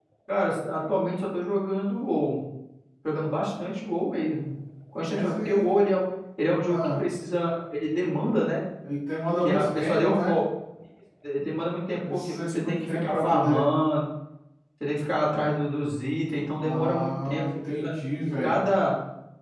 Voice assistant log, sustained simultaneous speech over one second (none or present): present